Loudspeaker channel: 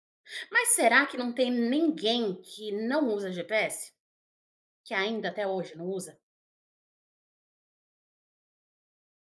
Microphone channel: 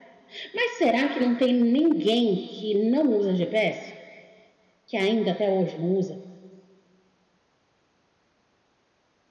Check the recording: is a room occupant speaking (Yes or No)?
No